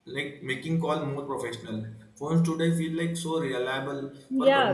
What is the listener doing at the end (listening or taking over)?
taking over